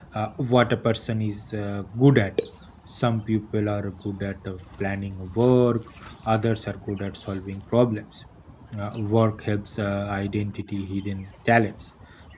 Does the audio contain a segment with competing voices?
No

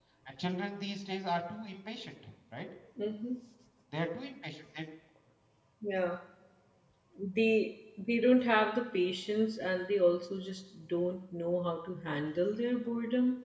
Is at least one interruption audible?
No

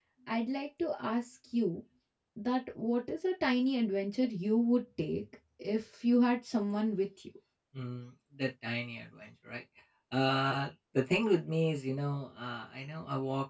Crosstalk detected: No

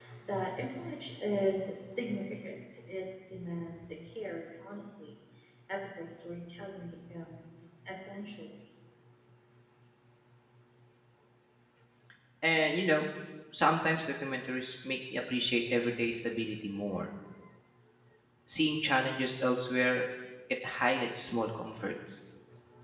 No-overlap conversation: Yes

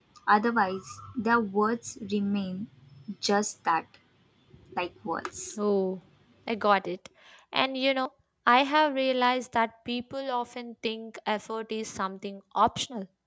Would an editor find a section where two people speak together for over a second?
No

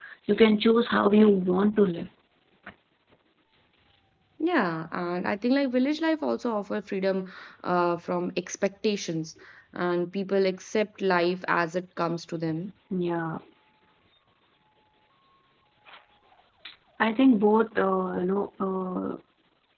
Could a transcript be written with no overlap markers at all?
Yes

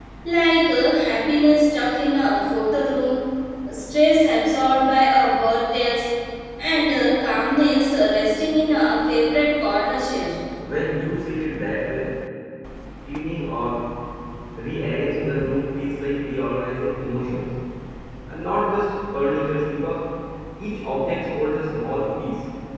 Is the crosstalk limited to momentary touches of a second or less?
Yes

